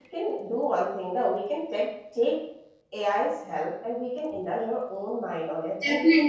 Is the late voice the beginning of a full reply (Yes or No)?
Yes